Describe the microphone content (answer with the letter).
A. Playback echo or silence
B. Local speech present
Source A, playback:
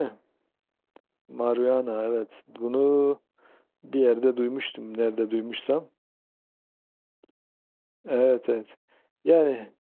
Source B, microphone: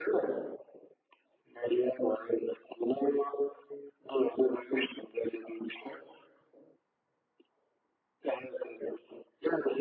A